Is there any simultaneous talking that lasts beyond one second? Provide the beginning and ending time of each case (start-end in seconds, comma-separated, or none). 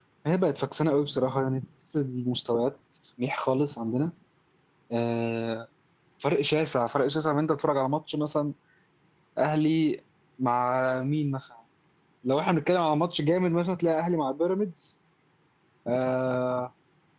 none